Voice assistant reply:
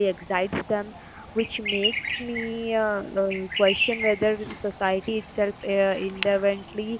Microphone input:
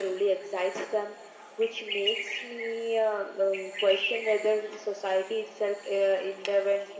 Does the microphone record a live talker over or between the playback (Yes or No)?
No